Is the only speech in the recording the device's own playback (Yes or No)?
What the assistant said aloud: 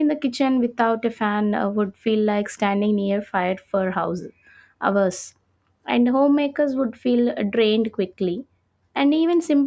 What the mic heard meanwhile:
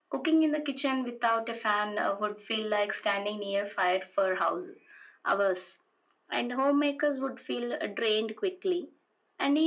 Yes